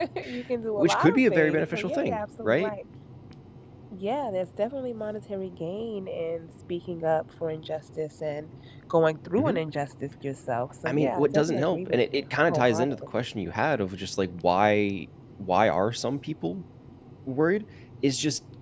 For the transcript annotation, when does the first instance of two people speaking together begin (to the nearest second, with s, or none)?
1 s